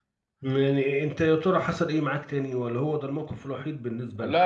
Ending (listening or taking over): taking over